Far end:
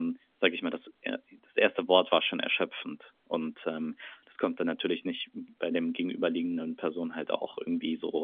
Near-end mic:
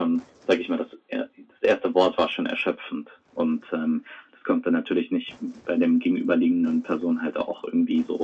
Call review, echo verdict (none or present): present